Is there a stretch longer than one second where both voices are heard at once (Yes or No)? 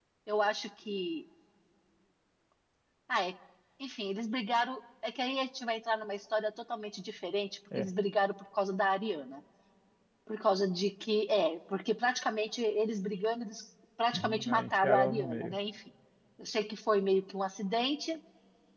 Yes